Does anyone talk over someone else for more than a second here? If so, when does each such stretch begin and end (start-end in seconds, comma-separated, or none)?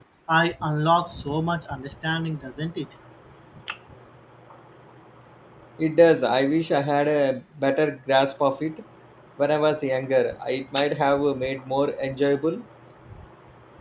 none